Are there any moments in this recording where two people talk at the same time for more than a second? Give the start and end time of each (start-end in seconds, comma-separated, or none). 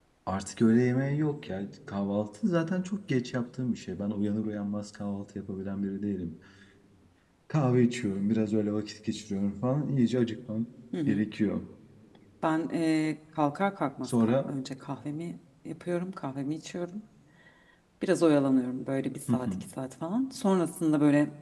none